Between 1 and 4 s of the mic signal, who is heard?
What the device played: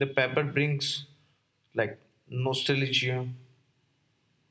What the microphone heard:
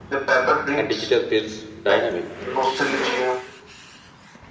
both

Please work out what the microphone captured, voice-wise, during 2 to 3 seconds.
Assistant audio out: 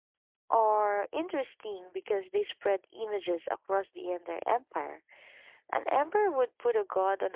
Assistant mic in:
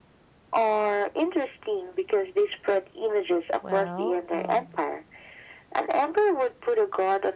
echo only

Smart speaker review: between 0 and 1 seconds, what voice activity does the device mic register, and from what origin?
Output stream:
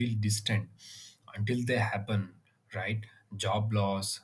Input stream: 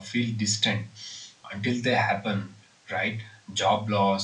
echo only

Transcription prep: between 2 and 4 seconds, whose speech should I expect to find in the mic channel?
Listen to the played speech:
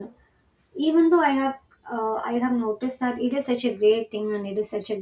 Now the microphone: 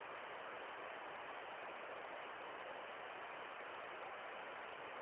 neither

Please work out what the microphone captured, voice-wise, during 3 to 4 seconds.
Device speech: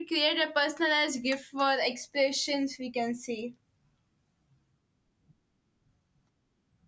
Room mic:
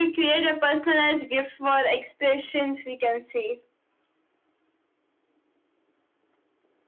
echo only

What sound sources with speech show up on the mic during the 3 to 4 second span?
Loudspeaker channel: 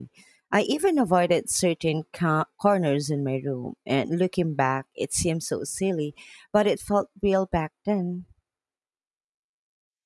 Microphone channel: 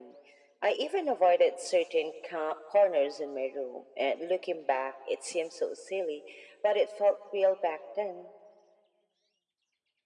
echo only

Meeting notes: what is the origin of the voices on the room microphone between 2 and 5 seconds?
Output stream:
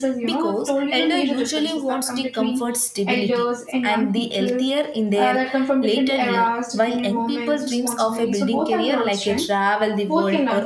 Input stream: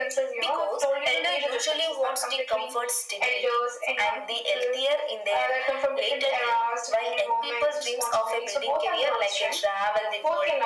echo only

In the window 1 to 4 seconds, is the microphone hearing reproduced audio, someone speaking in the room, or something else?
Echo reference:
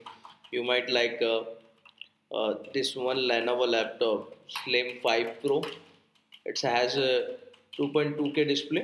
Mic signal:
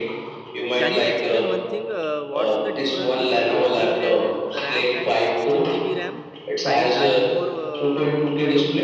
both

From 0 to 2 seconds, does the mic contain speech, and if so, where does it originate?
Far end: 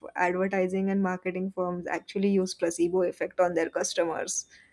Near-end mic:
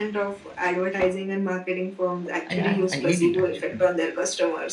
echo only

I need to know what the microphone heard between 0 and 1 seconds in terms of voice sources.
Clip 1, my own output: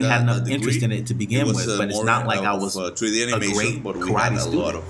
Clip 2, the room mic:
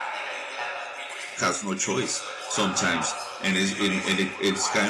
echo only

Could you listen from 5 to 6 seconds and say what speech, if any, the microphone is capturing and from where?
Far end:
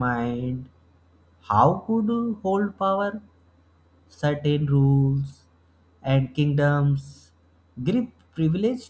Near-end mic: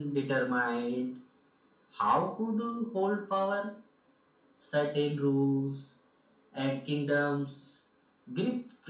echo only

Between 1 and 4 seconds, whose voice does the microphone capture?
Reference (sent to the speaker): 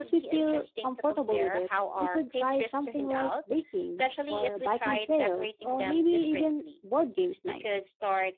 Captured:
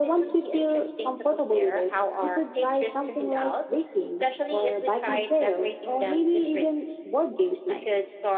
echo only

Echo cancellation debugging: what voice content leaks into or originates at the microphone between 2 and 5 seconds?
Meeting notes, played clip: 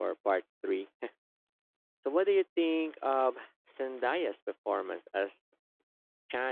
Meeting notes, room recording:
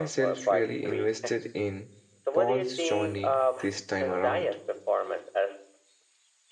both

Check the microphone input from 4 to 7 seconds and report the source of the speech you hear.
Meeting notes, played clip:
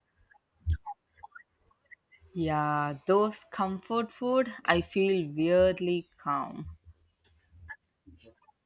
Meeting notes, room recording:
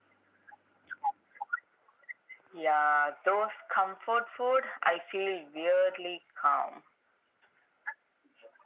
echo only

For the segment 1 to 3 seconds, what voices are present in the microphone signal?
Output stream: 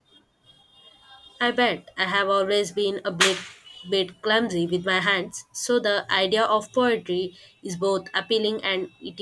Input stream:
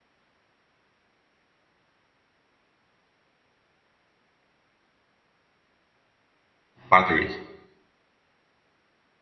neither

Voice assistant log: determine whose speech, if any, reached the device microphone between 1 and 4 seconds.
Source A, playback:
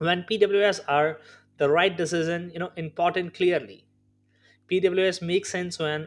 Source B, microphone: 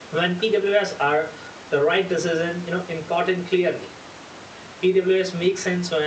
echo only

